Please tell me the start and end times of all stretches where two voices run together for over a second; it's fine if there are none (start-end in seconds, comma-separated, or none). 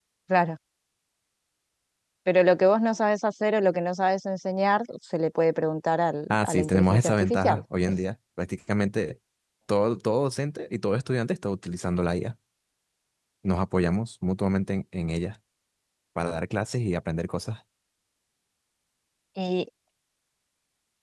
6.3-7.6